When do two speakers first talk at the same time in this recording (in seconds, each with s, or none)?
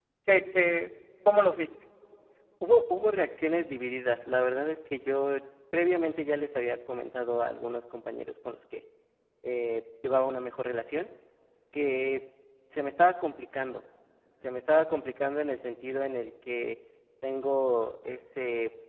none